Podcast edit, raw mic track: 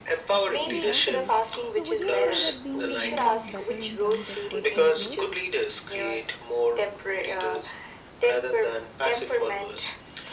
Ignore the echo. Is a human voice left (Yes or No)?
Yes